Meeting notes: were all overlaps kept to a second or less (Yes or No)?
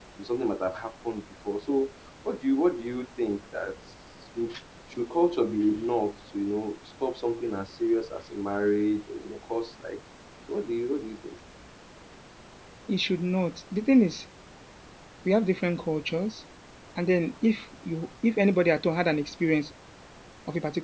Yes